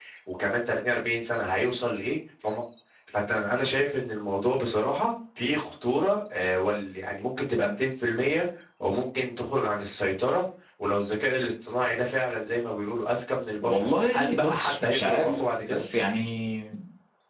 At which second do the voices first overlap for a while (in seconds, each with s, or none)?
13.6 s